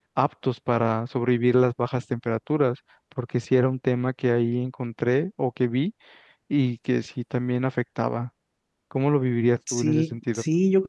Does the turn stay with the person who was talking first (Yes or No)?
No